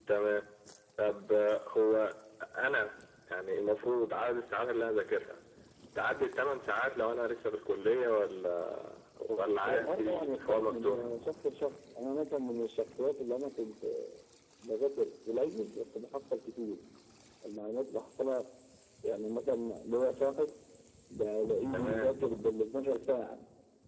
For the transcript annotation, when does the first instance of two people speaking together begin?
9.6 s

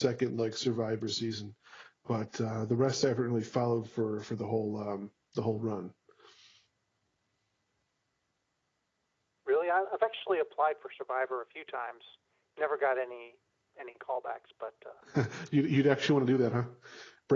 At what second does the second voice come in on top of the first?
none

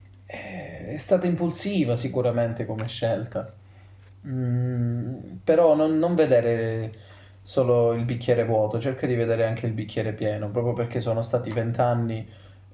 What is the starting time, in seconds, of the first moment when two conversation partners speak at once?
none

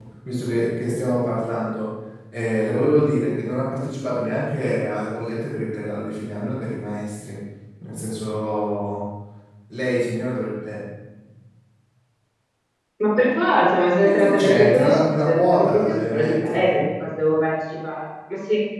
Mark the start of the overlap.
14.0 s

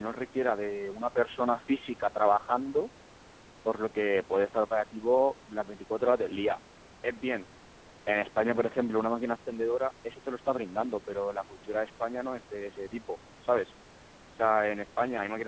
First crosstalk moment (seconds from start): none

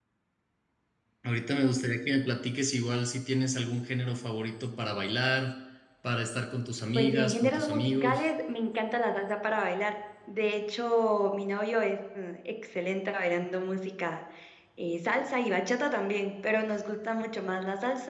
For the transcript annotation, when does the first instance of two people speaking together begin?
7.0 s

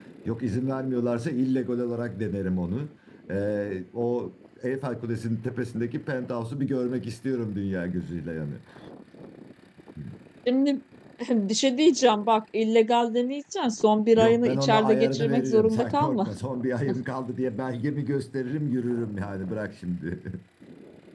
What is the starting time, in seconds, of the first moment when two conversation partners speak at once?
14.2 s

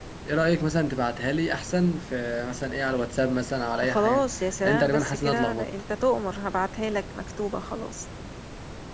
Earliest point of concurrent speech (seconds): 3.8 s

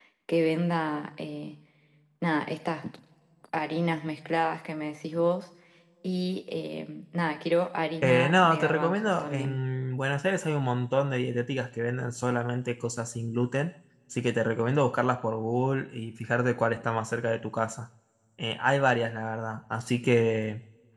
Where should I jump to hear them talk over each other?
8.0 s

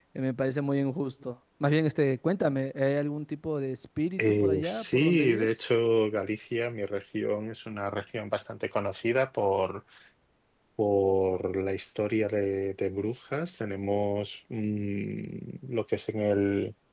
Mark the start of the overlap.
4.2 s

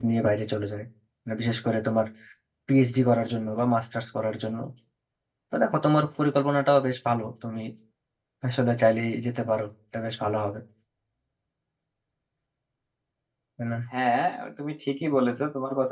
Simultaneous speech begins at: none

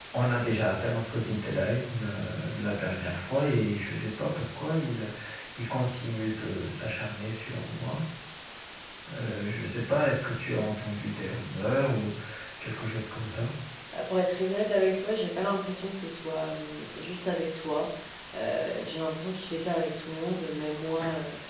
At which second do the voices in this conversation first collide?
none

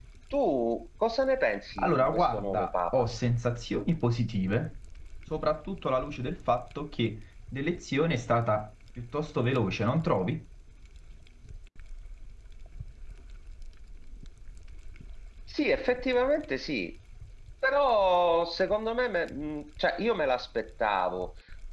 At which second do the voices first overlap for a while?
1.8 s

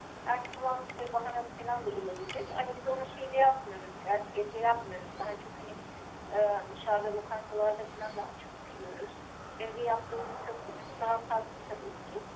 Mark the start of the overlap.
none

